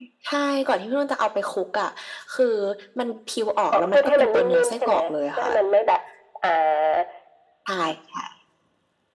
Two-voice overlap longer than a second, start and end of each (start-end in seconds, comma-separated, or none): 3.7-5.5